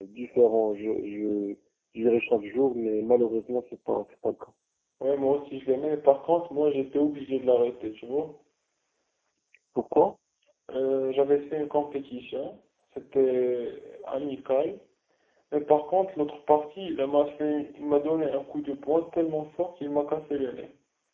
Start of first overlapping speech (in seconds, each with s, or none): none